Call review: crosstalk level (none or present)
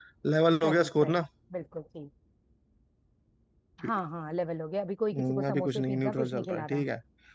present